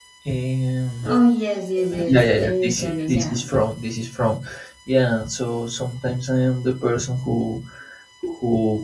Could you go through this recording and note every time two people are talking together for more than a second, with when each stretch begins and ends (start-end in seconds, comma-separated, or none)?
2.1-3.5